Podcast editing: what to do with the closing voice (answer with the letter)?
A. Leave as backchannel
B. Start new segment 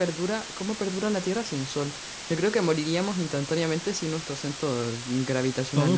B